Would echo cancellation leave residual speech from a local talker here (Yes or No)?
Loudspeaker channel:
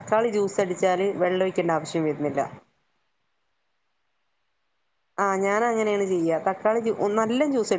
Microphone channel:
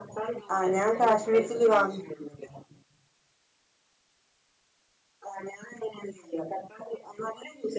Yes